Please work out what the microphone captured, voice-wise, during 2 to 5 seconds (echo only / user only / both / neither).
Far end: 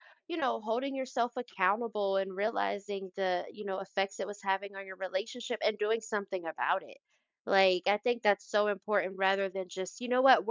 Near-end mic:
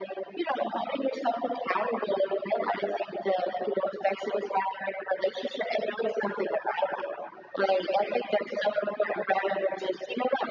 echo only